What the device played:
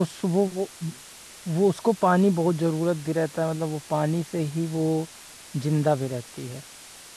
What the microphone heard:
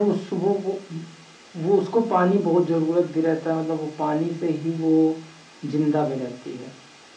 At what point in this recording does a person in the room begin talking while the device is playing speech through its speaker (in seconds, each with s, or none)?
none